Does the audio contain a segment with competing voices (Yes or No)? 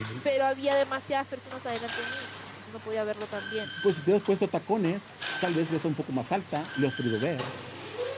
No